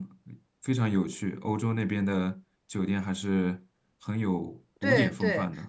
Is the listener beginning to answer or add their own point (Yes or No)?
Yes